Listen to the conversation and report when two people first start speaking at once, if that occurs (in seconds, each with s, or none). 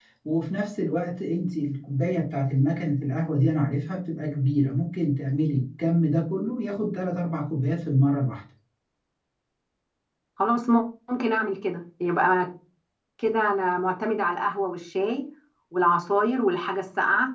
none